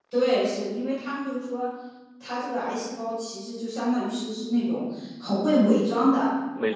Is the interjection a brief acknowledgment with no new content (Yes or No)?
Yes